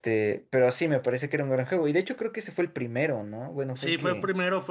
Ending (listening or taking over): taking over